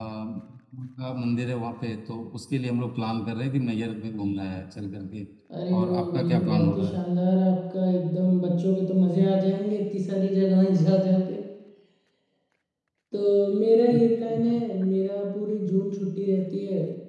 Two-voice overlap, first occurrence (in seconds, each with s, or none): 5.8 s